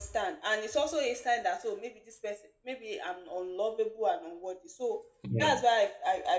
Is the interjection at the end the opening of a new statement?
No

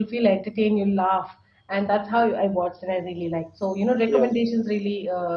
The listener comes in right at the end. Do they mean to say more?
No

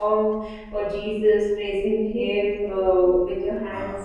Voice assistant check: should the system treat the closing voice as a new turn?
No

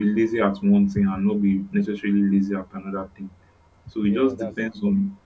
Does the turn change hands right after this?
No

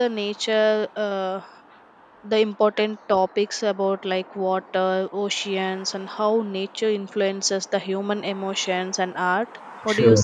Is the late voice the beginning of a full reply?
Yes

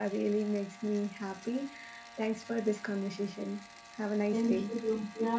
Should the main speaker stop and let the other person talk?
Yes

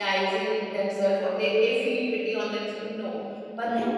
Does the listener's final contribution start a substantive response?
No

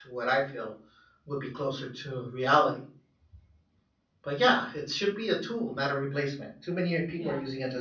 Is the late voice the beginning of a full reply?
Yes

